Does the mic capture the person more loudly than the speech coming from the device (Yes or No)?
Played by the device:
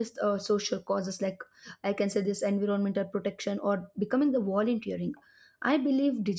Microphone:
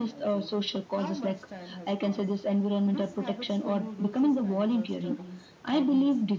No